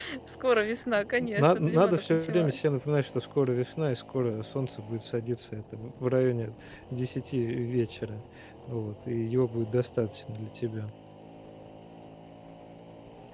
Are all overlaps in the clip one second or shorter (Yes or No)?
No